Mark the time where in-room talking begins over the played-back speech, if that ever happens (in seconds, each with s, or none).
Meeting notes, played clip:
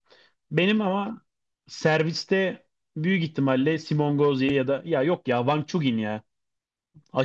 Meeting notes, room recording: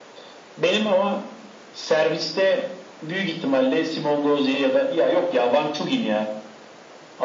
none